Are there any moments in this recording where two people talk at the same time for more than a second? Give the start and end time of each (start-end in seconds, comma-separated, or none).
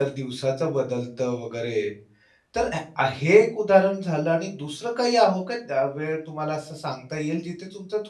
none